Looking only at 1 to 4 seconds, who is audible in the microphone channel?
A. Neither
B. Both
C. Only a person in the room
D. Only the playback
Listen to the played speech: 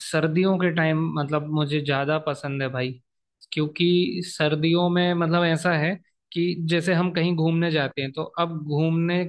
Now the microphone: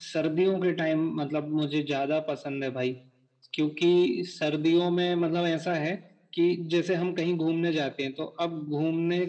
D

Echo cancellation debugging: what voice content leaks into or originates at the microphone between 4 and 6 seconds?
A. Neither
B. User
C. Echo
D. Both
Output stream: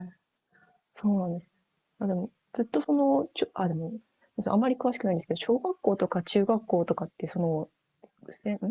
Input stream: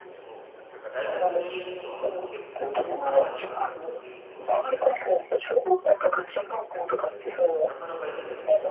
D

